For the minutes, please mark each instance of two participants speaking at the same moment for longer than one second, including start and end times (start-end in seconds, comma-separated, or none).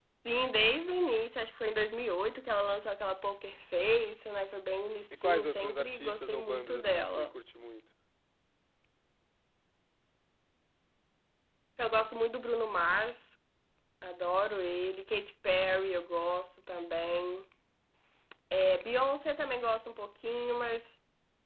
5.2-7.2